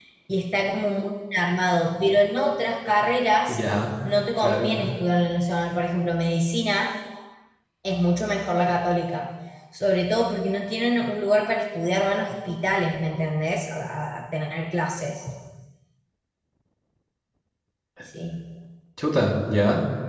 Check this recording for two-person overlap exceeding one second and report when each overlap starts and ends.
none

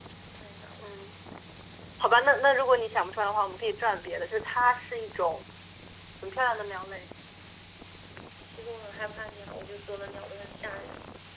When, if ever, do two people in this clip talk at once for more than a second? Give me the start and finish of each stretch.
none

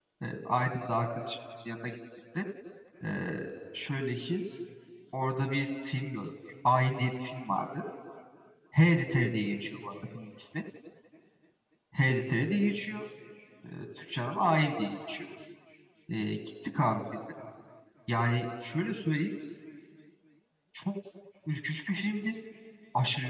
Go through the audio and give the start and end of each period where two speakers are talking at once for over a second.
none

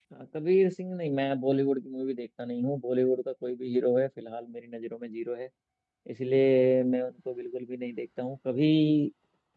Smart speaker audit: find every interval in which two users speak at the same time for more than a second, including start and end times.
none

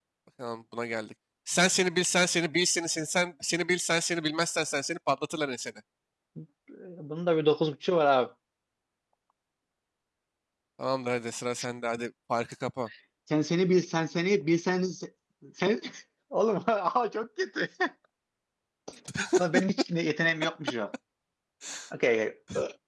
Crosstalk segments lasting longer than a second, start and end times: none

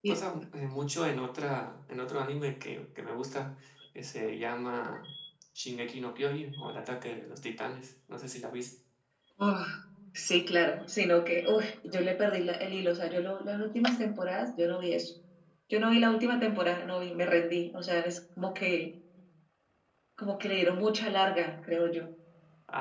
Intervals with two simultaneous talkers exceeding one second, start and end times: none

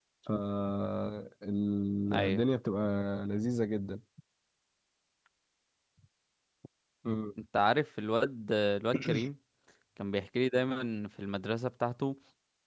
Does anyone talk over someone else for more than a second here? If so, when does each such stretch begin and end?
none

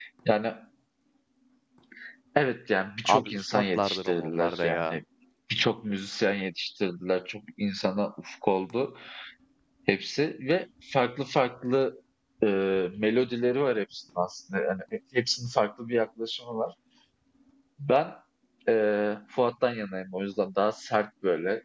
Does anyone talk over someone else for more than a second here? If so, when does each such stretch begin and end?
3.0-5.0

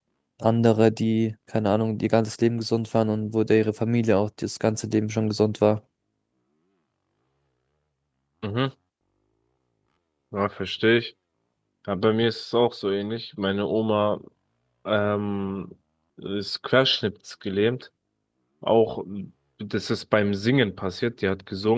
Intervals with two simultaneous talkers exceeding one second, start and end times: none

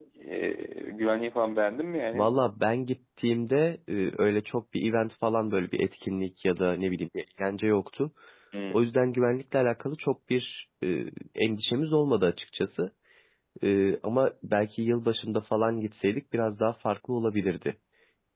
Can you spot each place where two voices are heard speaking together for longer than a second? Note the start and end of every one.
none

